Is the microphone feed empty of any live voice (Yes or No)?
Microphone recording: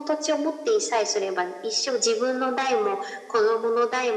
Yes